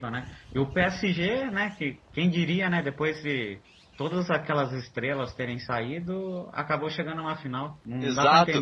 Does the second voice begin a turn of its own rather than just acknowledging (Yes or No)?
Yes